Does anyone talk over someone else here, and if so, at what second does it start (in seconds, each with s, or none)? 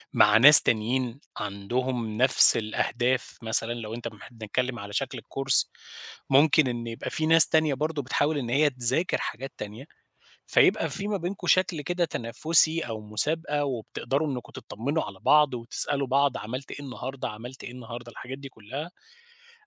none